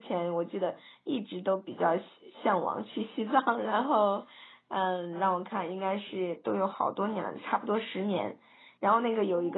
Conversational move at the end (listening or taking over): listening